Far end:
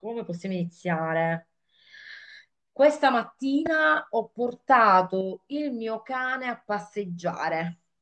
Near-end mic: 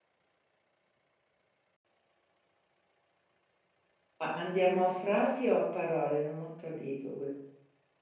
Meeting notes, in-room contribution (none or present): present